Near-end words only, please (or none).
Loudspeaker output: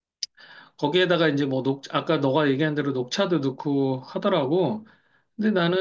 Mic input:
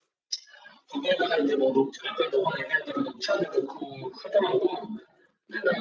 none